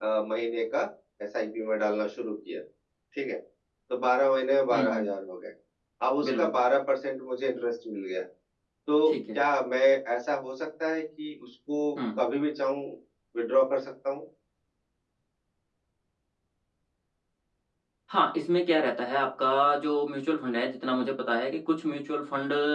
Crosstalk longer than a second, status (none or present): none